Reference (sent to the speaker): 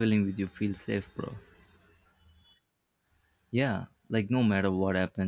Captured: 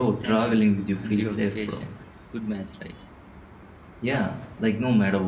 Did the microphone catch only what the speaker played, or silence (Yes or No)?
No